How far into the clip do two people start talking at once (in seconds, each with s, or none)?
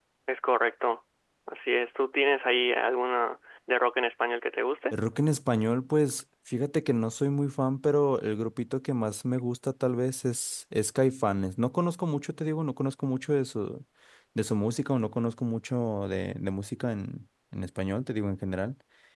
none